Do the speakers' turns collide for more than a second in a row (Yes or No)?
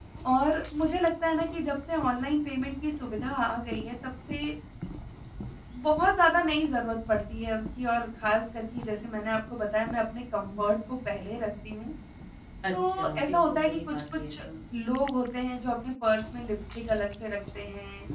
Yes